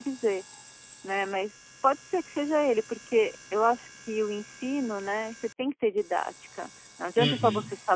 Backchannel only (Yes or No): Yes